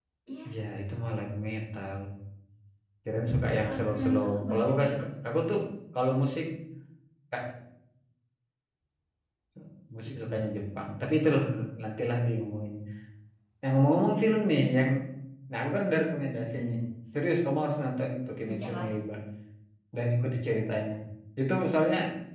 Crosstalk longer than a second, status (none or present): present